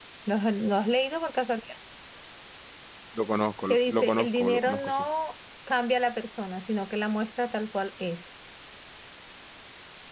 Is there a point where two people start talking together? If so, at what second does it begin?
3.7 s

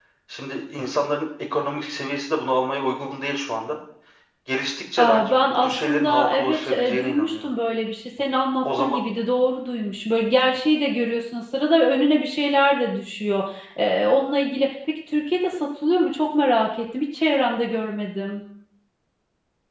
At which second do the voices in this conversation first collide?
5.0 s

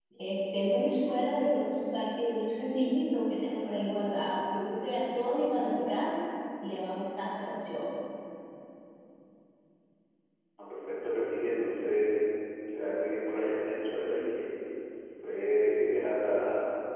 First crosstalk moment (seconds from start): none

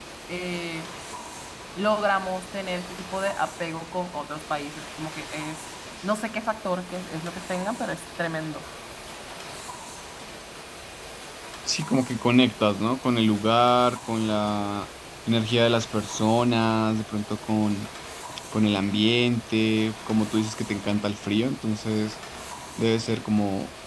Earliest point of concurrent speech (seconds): none

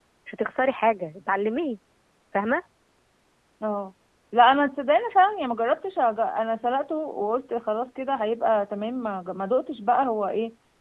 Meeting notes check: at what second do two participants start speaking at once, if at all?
none

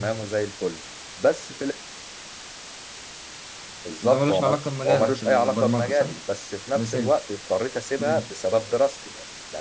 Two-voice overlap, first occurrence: 4.0 s

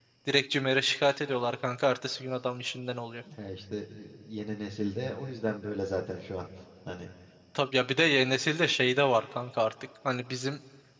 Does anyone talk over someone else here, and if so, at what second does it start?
none

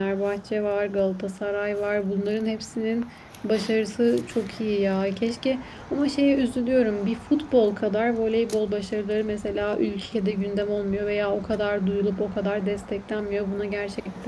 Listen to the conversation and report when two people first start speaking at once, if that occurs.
none

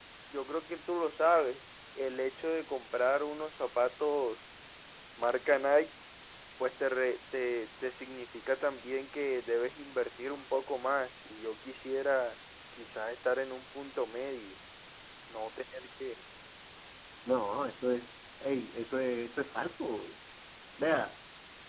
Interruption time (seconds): none

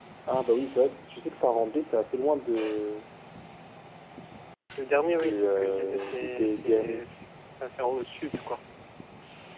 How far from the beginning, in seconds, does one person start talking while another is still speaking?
5.0 s

